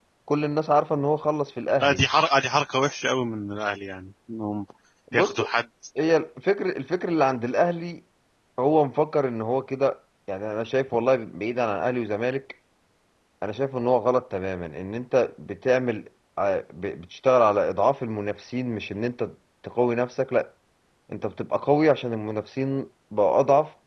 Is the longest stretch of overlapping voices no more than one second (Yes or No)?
Yes